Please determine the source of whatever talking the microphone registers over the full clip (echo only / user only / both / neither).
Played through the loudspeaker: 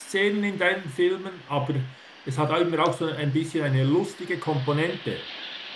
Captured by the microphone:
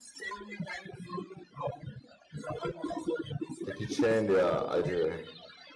both